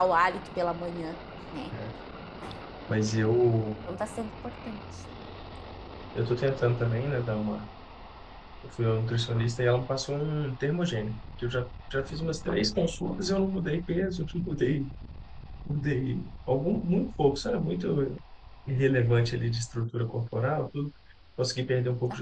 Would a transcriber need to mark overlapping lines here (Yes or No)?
No